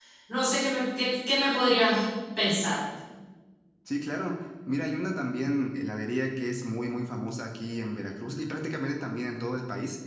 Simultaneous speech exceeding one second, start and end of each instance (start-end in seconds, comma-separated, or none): none